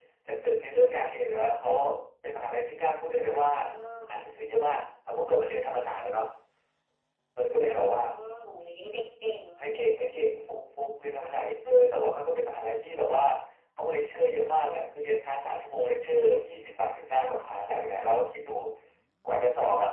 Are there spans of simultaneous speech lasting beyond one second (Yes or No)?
No